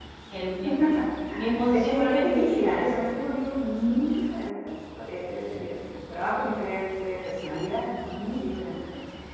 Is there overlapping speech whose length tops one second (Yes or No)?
Yes